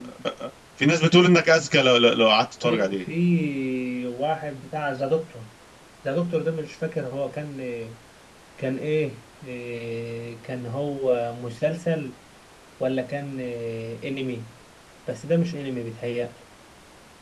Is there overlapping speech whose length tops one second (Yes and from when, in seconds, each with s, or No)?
No